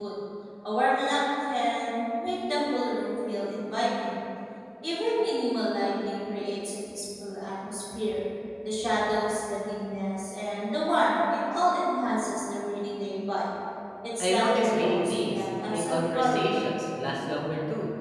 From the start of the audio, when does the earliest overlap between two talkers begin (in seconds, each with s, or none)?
14.2 s